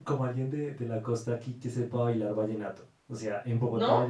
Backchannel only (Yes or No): Yes